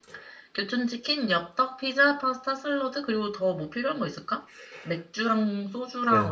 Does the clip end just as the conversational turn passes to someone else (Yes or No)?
Yes